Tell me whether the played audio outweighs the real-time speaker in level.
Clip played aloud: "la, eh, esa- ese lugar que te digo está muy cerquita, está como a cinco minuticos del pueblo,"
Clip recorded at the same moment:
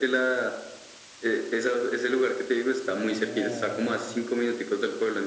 Yes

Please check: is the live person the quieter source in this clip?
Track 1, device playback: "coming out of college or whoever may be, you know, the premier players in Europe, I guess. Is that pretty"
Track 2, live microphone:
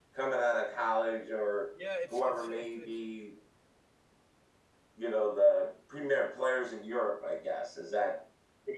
Yes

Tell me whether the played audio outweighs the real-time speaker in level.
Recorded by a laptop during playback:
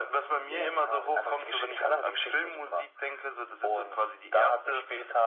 Yes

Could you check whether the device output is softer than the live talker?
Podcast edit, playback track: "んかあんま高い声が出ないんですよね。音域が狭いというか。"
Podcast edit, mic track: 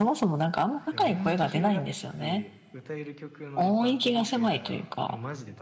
No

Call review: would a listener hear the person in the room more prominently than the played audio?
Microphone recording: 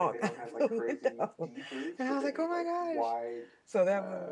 Yes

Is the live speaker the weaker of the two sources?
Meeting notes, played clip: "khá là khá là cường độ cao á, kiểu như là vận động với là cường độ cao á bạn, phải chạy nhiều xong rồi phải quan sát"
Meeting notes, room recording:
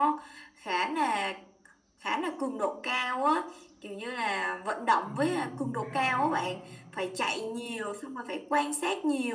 Yes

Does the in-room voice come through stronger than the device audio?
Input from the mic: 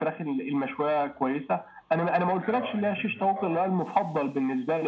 No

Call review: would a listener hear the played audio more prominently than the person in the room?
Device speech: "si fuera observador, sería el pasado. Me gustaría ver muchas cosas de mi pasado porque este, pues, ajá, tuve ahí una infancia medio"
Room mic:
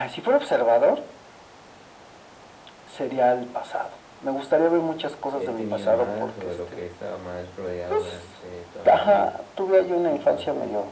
Yes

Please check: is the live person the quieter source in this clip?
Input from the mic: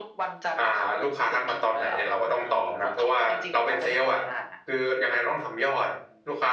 No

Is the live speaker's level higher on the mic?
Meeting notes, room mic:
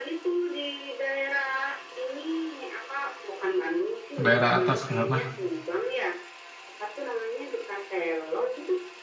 Yes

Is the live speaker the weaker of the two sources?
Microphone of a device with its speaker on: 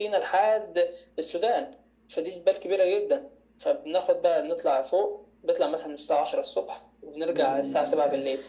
Yes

